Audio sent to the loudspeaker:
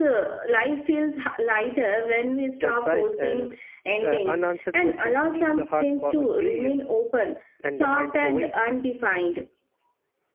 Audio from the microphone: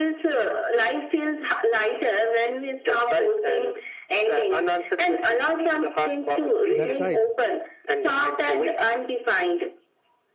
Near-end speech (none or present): present